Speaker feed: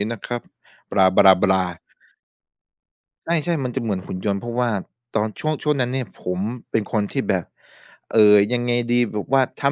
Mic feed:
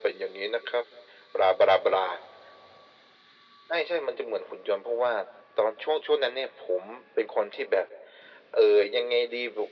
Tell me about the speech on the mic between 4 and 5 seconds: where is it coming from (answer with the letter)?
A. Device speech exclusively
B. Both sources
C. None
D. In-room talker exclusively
A